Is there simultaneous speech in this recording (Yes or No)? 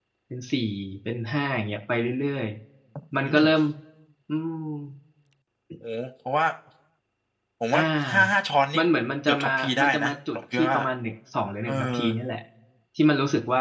Yes